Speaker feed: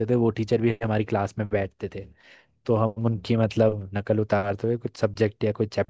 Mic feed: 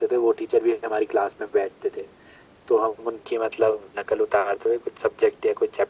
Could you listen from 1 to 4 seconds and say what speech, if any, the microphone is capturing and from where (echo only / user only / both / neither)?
echo only